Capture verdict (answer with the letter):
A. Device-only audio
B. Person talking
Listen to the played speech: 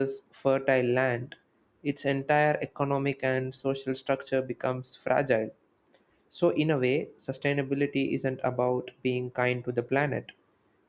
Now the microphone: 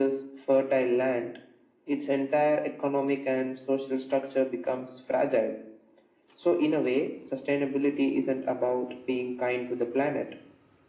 A